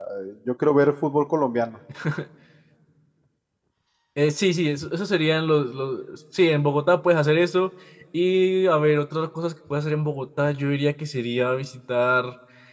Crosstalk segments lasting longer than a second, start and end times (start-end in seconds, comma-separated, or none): none